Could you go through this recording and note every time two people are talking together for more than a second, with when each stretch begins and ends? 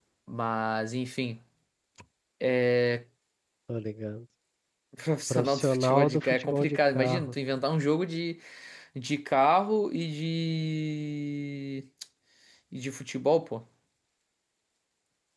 5.3-7.3

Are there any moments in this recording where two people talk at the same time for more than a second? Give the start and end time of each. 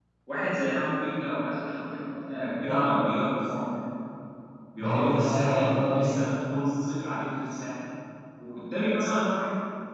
4.8-6.2

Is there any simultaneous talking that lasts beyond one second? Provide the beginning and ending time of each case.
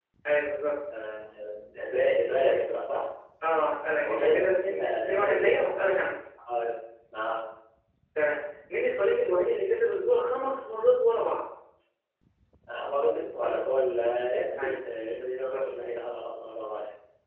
4.0-5.4

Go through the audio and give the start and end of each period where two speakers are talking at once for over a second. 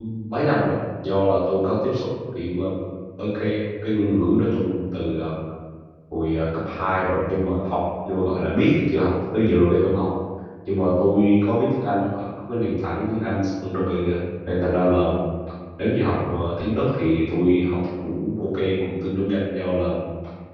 none

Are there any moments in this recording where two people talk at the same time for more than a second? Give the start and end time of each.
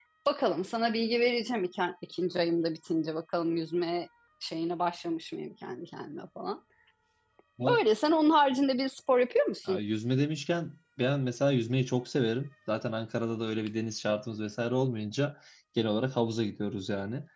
none

